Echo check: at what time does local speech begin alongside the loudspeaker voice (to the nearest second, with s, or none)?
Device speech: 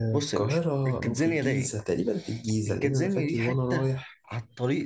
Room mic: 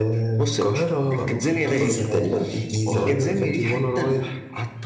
1 s